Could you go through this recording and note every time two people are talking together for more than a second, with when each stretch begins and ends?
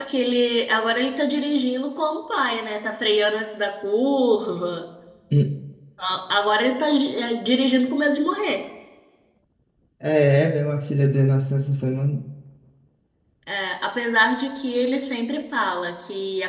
none

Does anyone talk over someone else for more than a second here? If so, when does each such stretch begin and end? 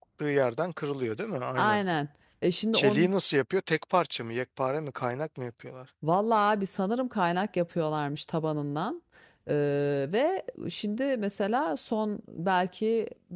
none

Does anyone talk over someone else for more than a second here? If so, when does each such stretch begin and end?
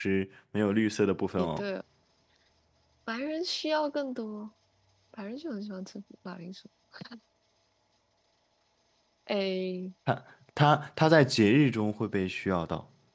none

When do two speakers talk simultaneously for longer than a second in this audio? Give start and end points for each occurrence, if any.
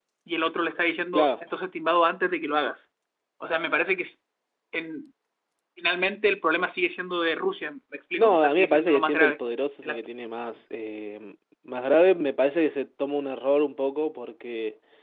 8.2-9.4

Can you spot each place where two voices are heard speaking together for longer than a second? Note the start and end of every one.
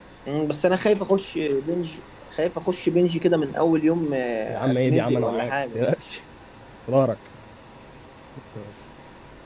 4.5-5.8

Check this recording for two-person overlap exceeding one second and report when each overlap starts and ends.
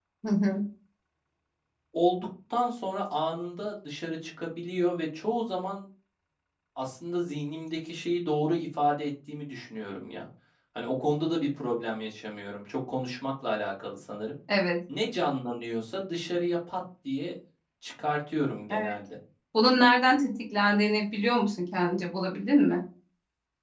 none

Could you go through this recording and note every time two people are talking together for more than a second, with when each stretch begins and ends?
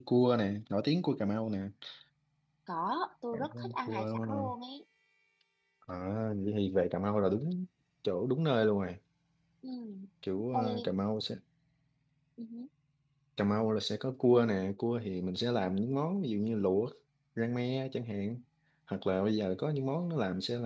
3.3-4.5

